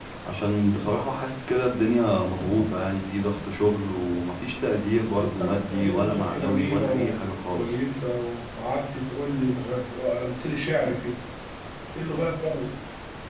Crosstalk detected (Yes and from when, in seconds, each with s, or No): Yes, from 5.0 s